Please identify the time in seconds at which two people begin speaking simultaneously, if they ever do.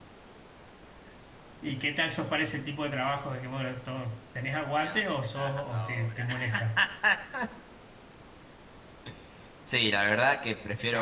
4.8 s

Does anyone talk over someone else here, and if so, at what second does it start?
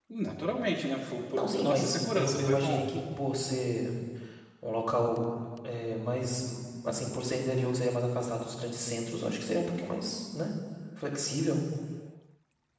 1.3 s

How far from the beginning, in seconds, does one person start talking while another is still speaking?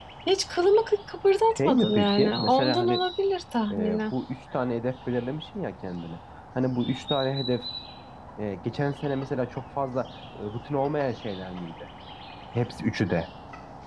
1.6 s

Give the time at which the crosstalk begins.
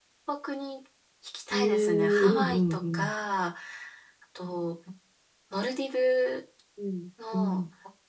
1.5 s

